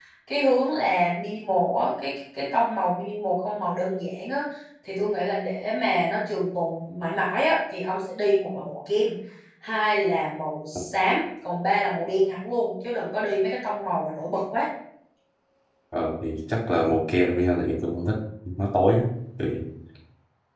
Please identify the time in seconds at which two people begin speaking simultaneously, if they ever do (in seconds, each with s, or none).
none